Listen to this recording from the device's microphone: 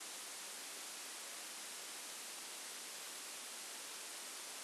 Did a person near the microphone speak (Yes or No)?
No